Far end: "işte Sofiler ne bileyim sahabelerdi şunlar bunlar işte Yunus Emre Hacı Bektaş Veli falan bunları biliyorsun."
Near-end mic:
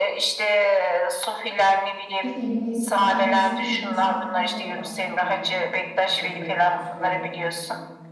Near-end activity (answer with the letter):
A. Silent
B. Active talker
B